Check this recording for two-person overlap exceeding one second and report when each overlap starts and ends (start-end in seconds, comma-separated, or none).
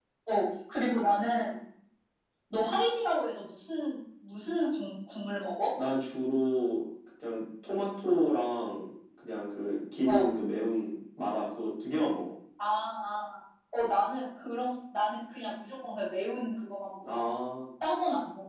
none